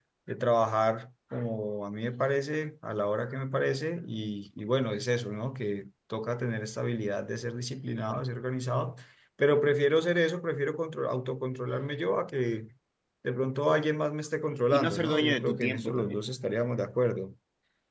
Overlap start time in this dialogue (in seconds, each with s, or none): 14.7 s